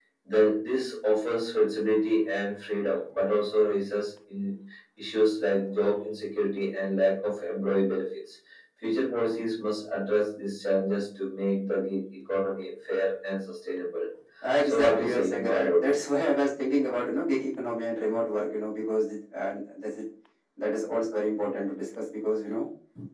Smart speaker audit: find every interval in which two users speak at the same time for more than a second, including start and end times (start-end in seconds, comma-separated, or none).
14.6-16.0